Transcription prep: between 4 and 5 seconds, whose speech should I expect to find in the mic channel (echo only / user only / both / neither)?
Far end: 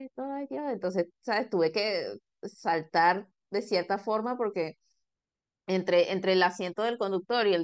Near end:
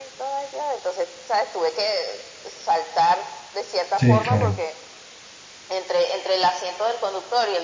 both